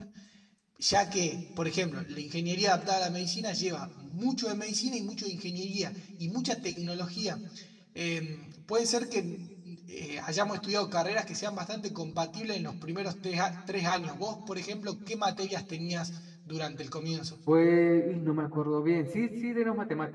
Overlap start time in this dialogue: none

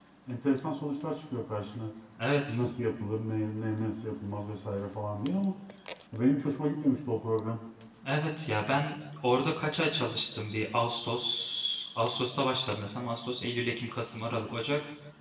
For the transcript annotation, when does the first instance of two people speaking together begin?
none

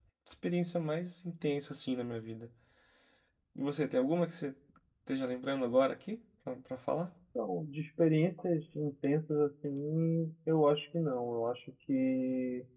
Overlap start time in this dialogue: none

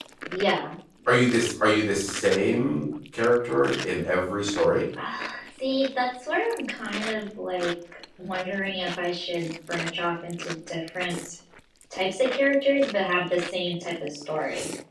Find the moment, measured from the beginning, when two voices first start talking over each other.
none

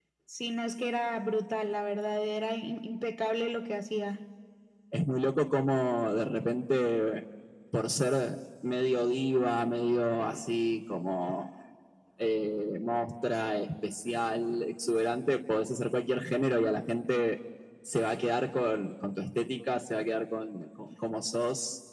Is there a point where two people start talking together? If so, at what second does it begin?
none

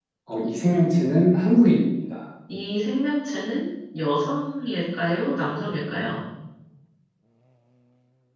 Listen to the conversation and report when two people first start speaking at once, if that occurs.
none

